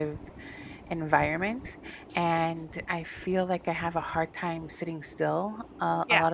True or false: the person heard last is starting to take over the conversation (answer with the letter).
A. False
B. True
A